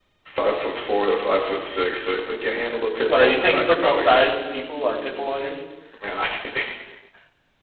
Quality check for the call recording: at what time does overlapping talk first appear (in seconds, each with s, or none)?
3.1 s